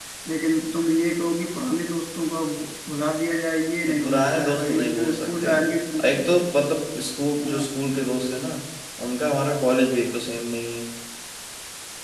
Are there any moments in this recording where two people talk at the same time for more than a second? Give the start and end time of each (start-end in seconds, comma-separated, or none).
3.9-5.5